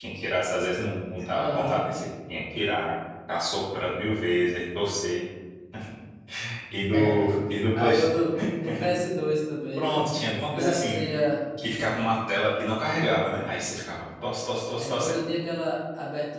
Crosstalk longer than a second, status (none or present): none